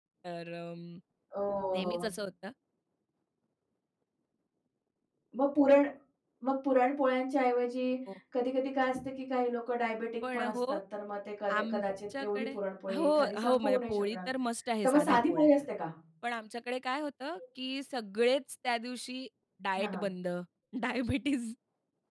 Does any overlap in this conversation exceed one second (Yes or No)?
Yes